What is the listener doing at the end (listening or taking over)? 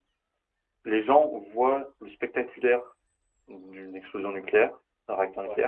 listening